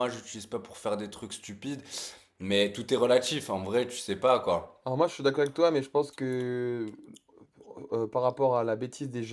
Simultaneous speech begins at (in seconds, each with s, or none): none